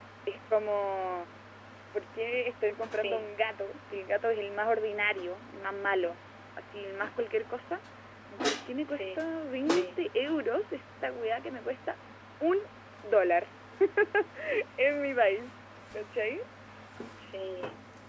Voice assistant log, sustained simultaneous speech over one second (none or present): none